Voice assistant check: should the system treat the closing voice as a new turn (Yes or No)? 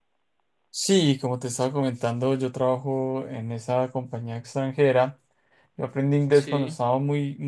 No